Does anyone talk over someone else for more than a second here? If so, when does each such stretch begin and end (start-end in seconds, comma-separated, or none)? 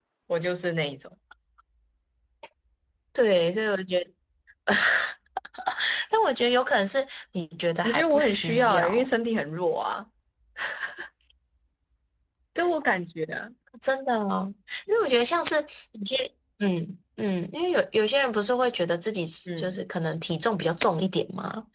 7.8-9.1